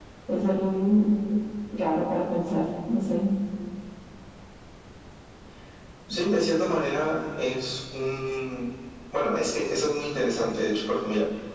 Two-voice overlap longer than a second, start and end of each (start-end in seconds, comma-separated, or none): none